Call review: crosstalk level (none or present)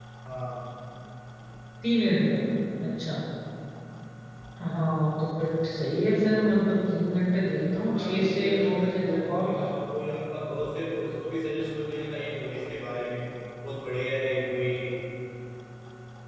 present